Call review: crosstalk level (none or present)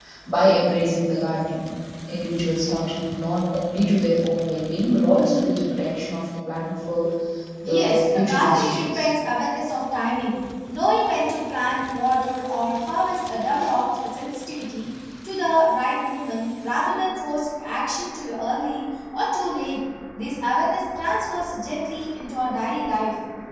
present